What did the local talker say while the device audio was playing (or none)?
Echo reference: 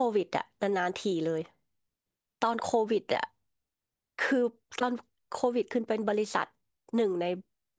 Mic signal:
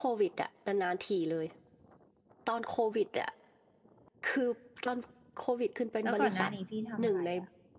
แล้วก่อนหน้านี้พี่ทำอะไรอ่ะ